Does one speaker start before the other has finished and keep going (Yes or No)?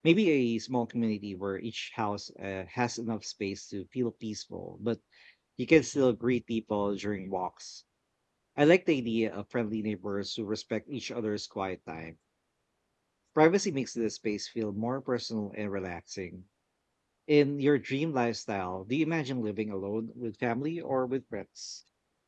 No